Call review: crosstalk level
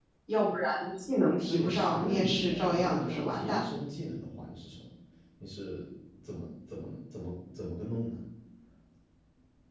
present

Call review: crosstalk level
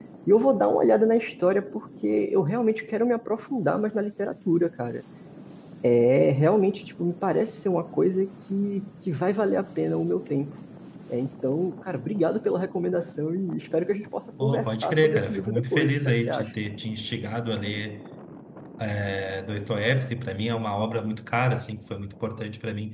present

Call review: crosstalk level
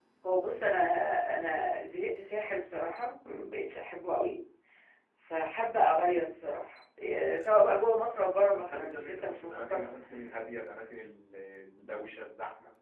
present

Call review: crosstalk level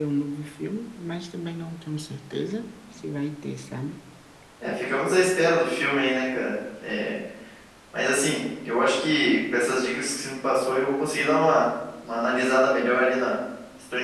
none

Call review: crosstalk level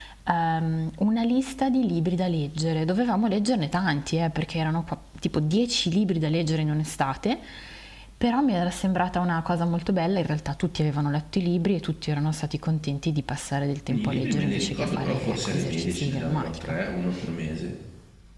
present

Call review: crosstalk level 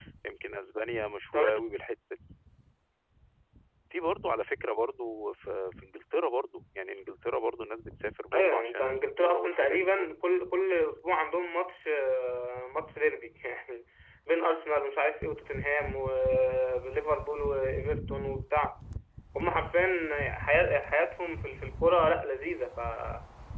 present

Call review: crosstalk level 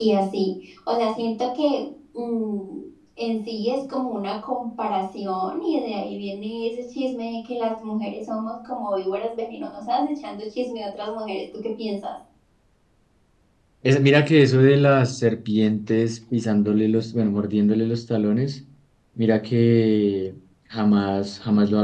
none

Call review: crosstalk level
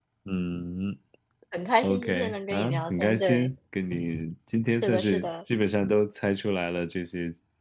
present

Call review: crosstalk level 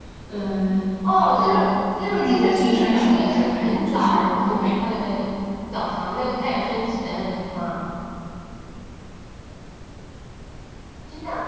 present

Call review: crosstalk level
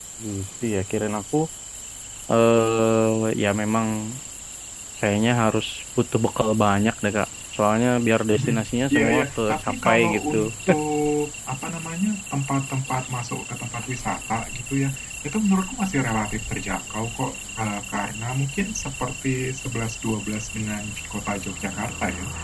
present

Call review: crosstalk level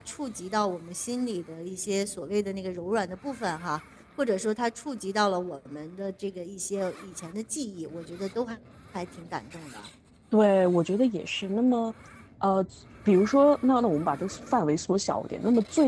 none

